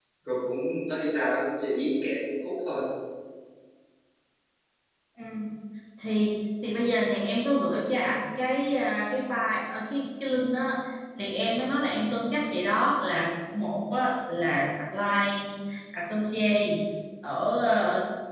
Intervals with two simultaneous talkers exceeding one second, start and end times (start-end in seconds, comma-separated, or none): none